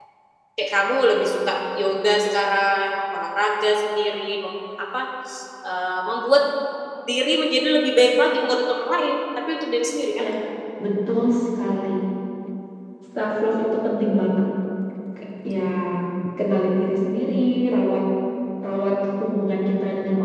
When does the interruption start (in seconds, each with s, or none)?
none